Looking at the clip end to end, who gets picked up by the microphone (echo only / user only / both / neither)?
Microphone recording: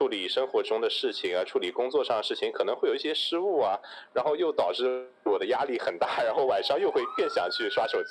echo only